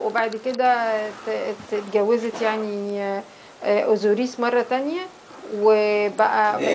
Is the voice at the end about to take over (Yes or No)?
Yes